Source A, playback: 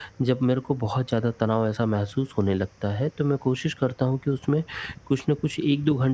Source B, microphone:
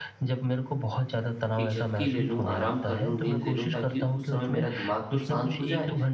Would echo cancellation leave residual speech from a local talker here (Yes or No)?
Yes